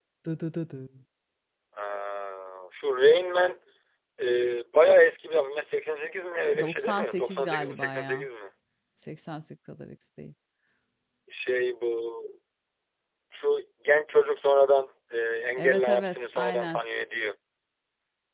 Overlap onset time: 6.6 s

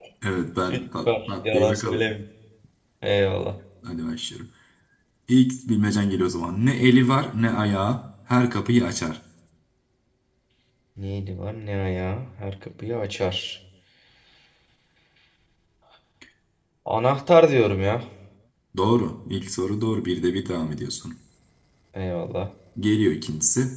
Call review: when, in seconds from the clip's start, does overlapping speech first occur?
0.7 s

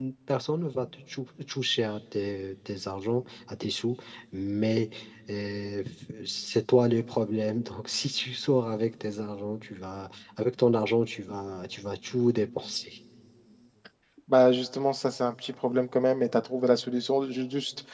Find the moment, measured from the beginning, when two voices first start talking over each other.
none

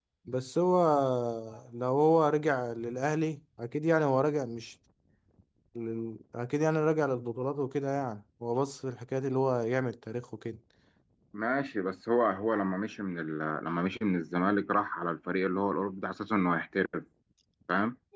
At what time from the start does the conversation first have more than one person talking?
none

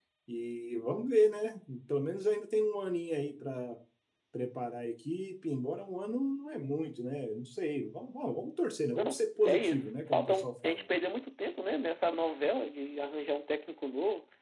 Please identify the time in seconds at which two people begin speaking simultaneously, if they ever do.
9.0 s

